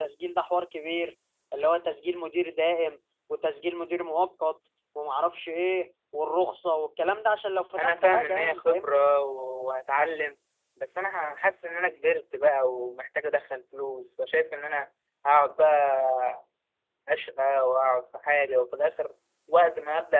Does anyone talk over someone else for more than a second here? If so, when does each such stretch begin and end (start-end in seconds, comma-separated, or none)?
7.8-9.1